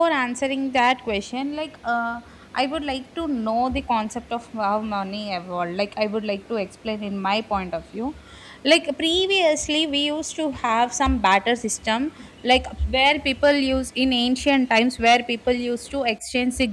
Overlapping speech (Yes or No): No